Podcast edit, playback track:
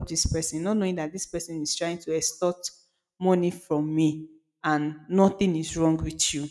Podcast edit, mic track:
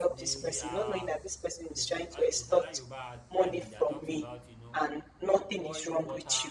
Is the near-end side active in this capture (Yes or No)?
Yes